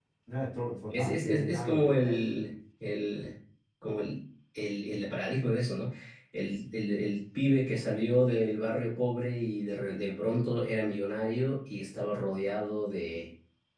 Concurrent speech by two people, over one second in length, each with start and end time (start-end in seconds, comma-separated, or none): 0.9-2.2